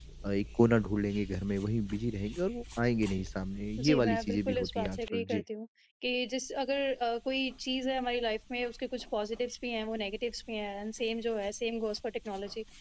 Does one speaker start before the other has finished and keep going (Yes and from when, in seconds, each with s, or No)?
Yes, from 3.8 s